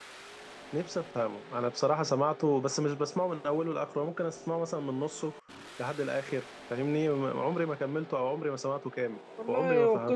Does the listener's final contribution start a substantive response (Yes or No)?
Yes